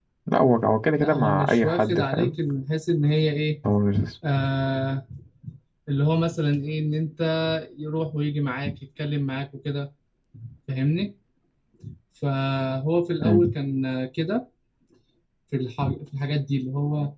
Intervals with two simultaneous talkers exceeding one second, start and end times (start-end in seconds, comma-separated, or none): 1.0-2.3